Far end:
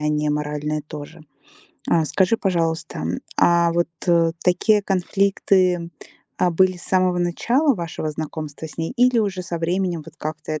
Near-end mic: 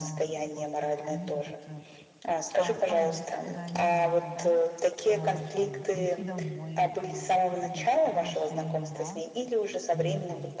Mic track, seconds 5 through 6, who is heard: both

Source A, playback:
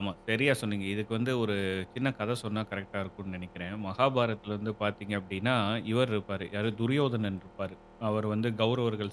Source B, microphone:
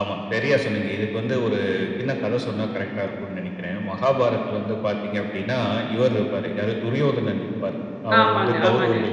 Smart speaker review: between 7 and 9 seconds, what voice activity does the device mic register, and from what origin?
both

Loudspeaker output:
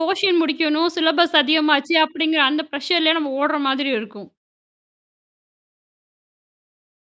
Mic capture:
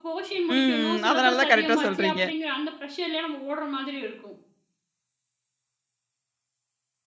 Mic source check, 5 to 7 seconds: neither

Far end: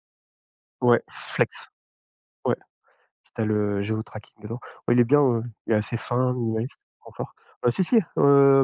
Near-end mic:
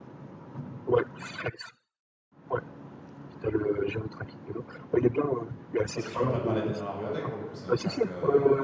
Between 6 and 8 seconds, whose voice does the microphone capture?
both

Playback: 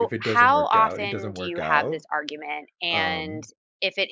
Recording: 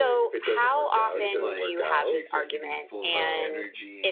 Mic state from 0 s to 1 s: echo only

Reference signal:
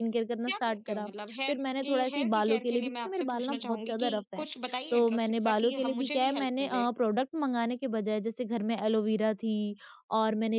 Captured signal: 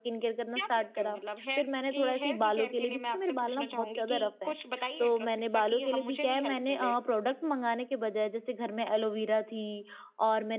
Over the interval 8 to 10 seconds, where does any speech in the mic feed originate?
echo only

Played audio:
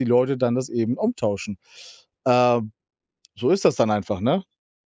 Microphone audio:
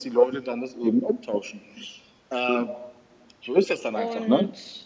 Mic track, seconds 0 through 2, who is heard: echo only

